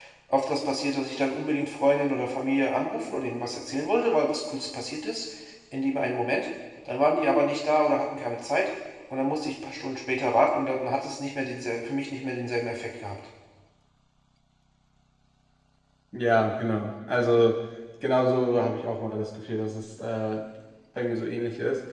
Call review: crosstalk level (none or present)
none